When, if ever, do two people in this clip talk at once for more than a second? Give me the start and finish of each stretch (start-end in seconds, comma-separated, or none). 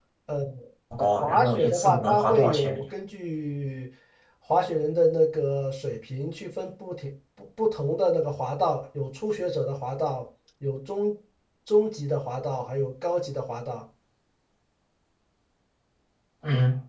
1.2-2.8